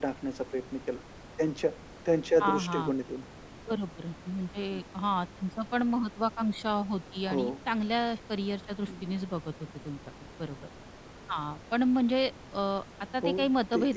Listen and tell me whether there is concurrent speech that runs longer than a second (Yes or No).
No